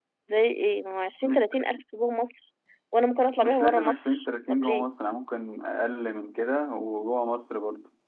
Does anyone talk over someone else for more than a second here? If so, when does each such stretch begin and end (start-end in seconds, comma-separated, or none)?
3.4-4.8